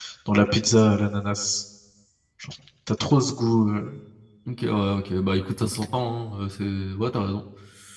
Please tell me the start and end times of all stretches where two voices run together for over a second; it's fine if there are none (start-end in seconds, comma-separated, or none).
none